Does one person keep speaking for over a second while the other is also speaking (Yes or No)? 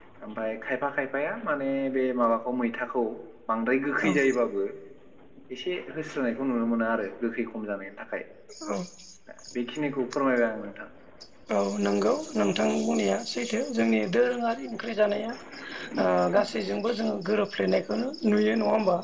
No